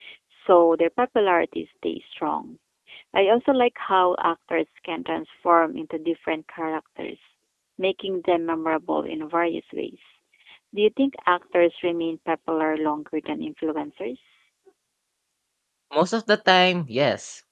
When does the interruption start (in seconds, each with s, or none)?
none